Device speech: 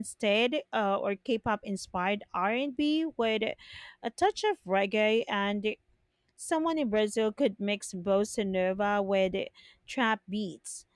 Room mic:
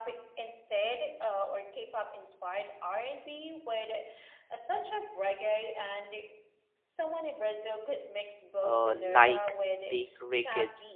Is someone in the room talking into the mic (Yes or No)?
Yes